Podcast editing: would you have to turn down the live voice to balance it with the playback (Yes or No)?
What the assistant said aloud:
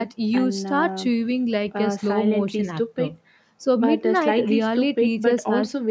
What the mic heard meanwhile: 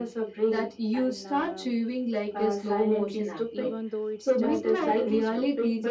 No